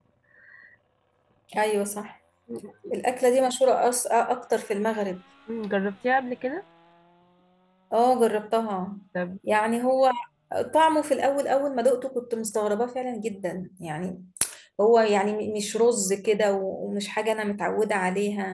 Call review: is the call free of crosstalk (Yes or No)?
Yes